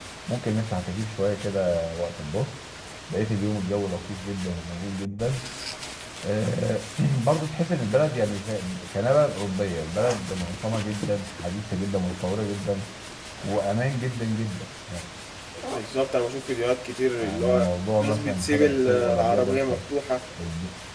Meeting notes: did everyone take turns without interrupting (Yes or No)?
No